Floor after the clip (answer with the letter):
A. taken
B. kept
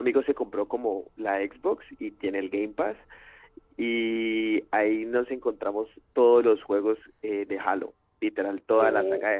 B